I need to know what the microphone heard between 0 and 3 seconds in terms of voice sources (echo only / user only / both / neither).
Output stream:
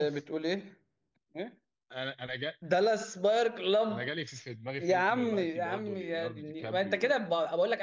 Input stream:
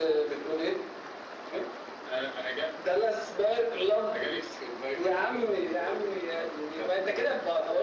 echo only